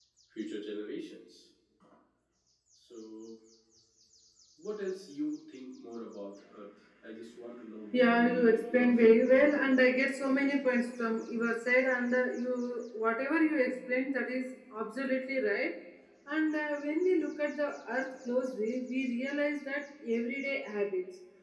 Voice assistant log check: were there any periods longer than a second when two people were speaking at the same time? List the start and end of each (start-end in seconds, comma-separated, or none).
7.9-9.2